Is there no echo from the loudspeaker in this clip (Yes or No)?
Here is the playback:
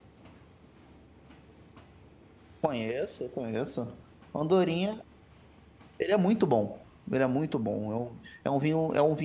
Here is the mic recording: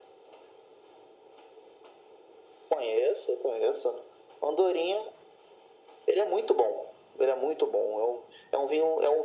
No